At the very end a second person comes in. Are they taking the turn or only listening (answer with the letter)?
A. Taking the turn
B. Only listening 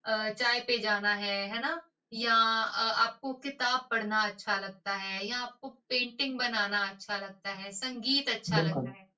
B